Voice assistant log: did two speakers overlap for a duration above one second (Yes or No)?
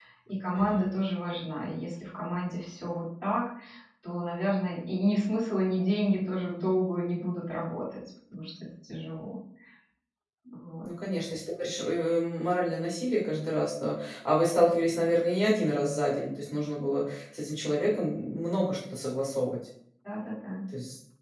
No